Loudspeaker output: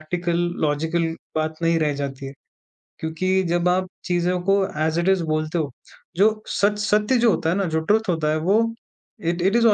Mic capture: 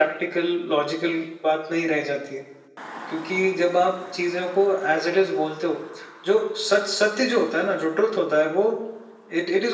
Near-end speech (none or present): none